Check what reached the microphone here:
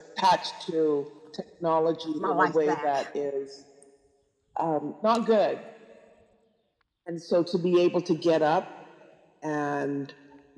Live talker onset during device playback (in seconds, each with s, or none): 2.2 s